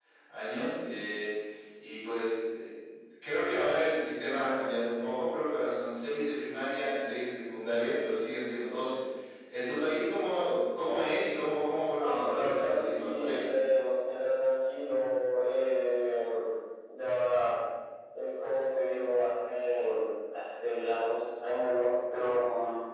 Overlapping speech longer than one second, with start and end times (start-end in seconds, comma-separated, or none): 12.0-13.5